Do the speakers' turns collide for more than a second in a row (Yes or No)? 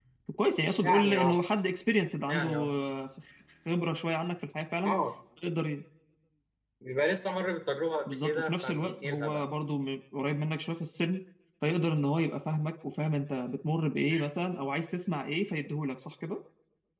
Yes